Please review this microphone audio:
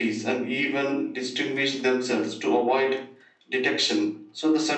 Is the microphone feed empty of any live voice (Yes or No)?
Yes